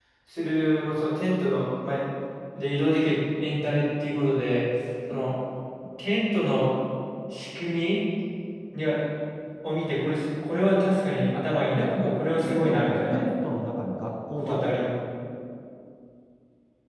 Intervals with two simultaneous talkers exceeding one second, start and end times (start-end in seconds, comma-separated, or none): 11.8-13.2